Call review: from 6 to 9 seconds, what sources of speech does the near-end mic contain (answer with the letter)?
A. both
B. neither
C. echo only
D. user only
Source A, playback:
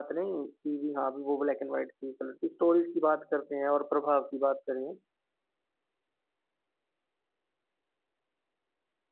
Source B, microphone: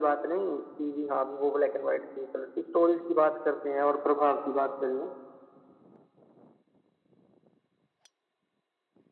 B